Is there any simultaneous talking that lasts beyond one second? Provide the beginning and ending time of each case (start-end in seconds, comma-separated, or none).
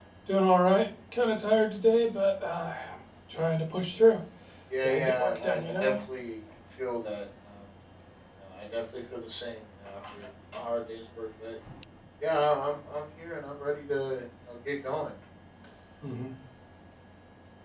4.8-6.0